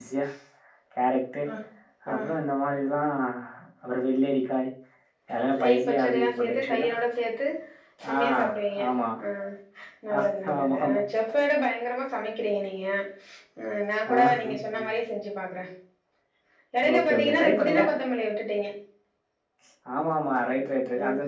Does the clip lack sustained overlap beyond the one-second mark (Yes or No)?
No